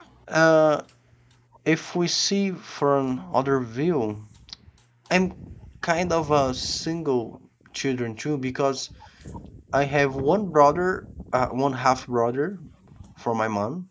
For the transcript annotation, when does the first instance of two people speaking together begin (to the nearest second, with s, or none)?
none